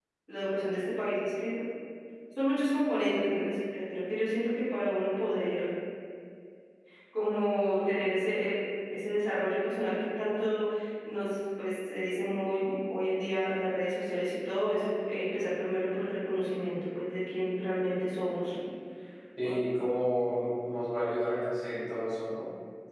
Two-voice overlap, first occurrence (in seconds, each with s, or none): none